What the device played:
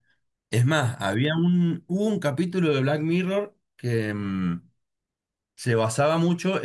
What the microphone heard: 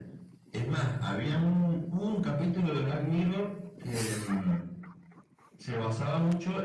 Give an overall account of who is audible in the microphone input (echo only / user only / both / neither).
echo only